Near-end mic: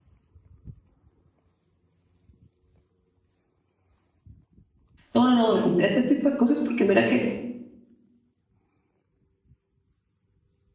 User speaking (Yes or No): Yes